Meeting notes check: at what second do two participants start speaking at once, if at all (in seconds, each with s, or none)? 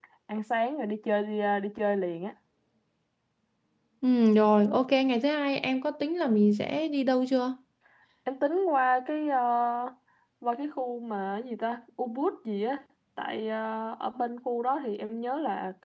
none